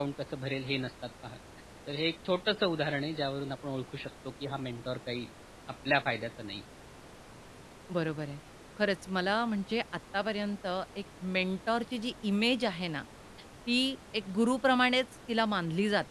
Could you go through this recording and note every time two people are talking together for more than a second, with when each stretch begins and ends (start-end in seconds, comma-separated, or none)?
none